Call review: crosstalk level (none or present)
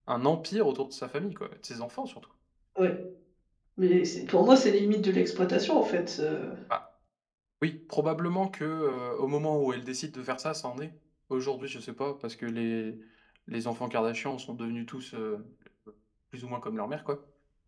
none